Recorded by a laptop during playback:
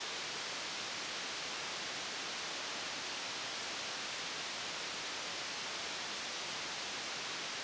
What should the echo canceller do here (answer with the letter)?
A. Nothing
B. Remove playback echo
A